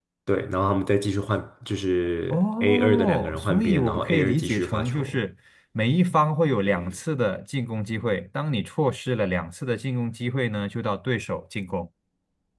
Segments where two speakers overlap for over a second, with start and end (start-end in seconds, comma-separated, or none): 2.3-5.2